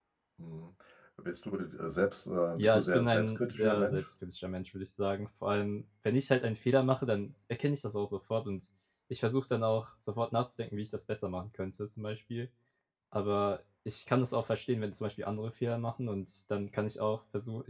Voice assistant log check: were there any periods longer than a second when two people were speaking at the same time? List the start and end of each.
2.6-4.1

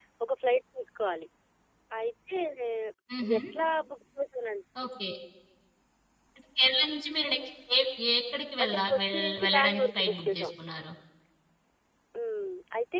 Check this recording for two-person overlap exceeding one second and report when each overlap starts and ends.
8.6-10.5

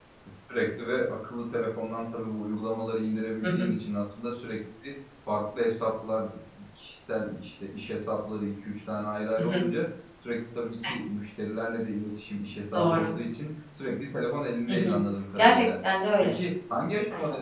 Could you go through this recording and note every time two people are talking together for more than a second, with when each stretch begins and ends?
none

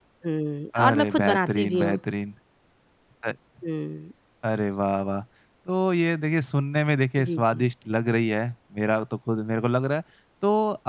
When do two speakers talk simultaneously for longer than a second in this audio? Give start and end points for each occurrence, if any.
0.8-2.0

